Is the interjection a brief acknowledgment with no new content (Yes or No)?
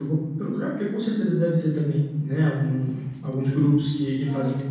Yes